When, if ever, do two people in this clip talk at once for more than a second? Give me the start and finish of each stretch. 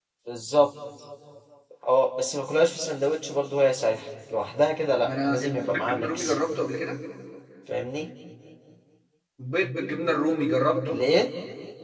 5.0-6.4

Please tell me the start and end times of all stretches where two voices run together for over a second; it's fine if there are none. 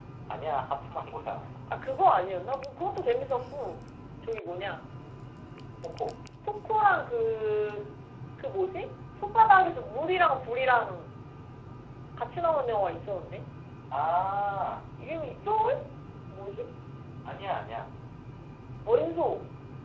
none

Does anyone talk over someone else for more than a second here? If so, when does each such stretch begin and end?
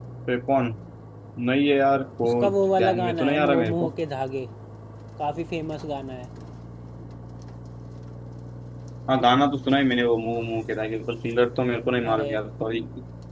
2.2-3.9

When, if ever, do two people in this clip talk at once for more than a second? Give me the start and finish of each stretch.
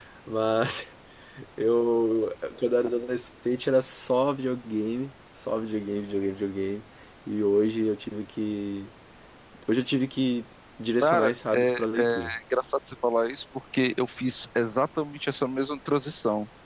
11.0-12.3

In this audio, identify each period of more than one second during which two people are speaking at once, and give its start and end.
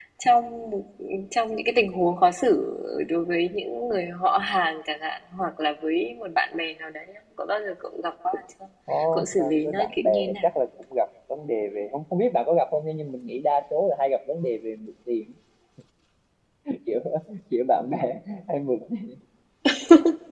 9.1-10.5

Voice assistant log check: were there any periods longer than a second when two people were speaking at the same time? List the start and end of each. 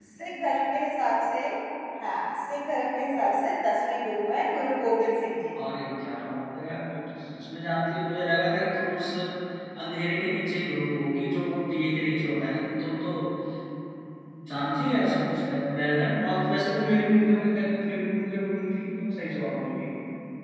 none

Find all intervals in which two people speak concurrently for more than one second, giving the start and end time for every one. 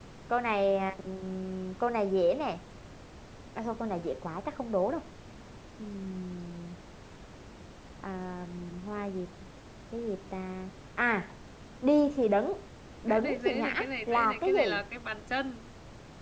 13.1-14.8

